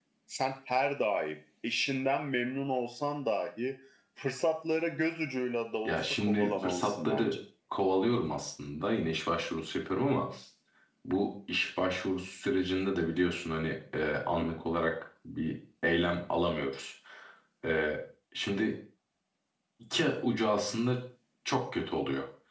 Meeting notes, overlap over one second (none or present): present